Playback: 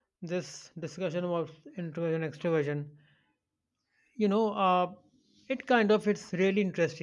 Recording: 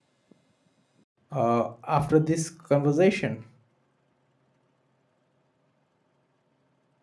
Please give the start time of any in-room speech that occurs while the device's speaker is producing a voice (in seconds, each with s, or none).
1.3 s